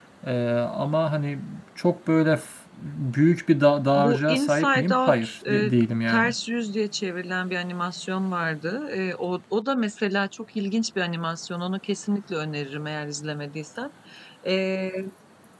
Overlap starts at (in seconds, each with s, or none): 4.0 s